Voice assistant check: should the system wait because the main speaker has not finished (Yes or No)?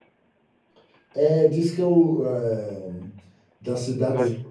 Yes